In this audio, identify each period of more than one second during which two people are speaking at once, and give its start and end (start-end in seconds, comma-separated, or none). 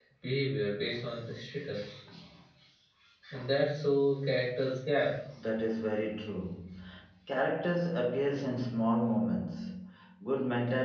none